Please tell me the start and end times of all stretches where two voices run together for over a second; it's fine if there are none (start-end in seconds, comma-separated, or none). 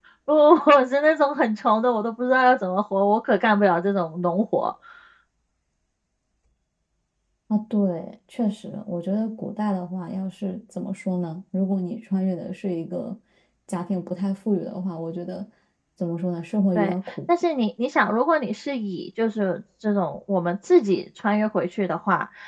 none